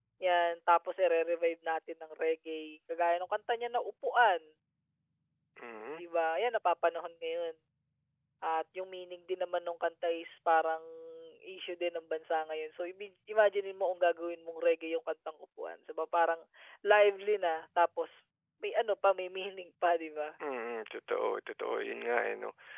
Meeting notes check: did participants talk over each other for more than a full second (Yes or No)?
No